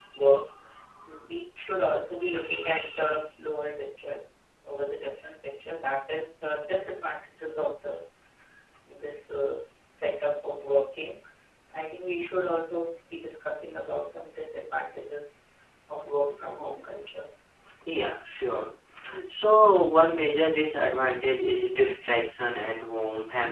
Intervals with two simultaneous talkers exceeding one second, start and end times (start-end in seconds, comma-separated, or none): none